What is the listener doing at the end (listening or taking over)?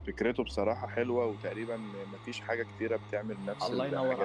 taking over